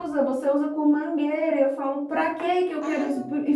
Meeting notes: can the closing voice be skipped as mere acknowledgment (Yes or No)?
Yes